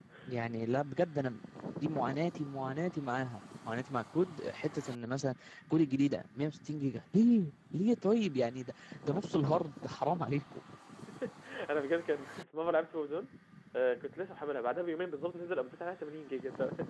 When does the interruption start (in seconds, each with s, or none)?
none